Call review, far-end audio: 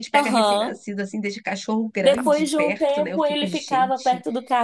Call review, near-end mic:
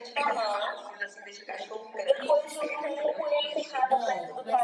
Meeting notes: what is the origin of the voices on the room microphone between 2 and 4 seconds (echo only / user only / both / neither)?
both